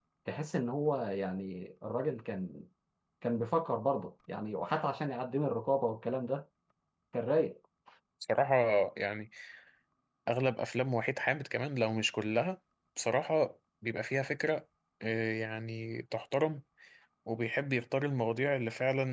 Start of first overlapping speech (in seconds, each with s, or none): none